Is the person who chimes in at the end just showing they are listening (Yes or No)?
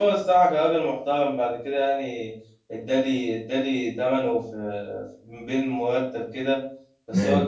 Yes